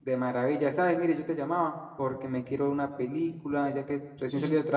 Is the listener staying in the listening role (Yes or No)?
Yes